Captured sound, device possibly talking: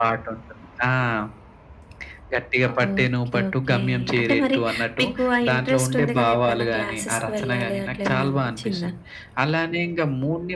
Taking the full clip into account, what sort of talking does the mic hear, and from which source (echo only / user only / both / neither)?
echo only